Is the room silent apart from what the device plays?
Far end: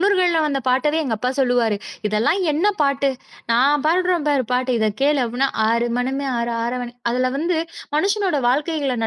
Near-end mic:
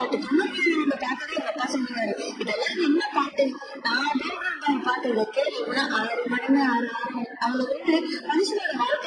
Yes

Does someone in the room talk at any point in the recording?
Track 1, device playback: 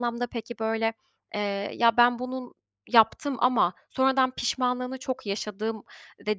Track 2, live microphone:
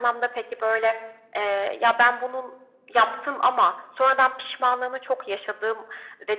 No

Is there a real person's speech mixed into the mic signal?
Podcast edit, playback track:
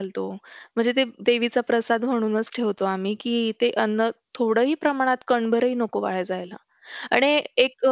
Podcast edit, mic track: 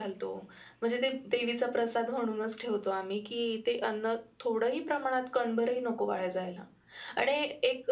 No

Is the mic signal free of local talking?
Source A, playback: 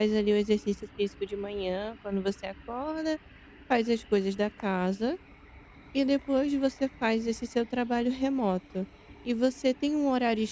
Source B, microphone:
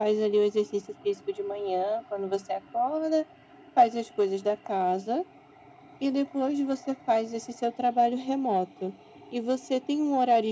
Yes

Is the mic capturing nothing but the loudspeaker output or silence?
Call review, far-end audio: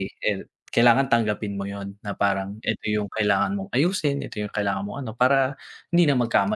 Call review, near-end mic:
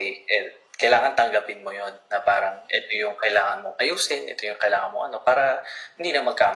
Yes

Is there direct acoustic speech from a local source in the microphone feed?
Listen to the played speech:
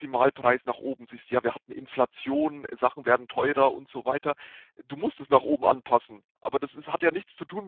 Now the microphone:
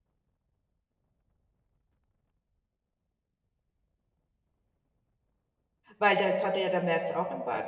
Yes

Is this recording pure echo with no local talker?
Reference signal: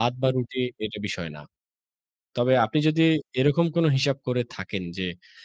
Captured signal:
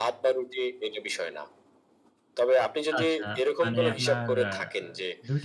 No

